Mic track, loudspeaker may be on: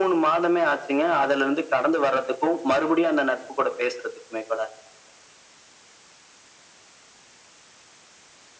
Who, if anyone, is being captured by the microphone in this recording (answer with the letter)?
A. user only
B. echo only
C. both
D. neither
B